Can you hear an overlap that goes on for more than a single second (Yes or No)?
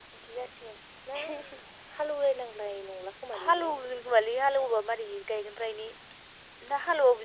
No